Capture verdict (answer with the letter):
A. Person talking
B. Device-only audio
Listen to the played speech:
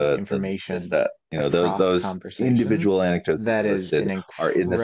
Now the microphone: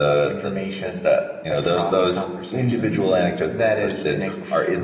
B